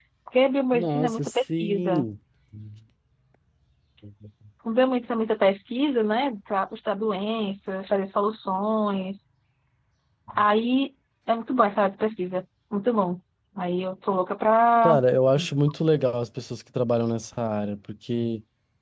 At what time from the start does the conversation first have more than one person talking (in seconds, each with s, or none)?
0.7 s